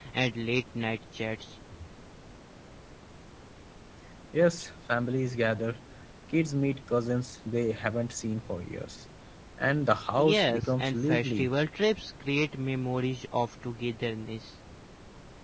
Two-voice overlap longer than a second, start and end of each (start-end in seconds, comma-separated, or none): 10.2-11.5